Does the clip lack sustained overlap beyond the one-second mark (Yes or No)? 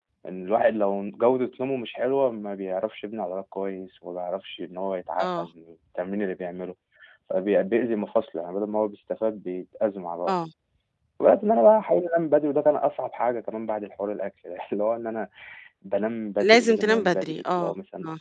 No